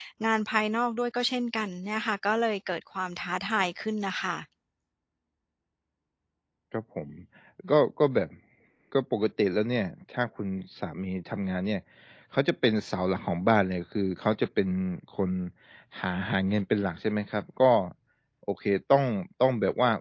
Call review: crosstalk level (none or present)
none